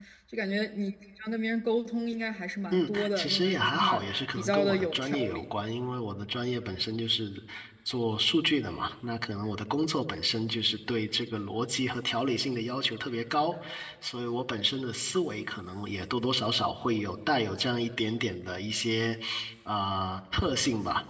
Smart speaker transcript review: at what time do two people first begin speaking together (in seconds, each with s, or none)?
2.7 s